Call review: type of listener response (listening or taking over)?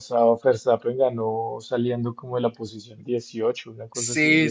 taking over